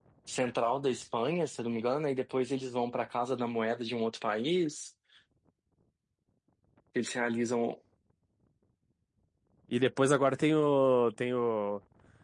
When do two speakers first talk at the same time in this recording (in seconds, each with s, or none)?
none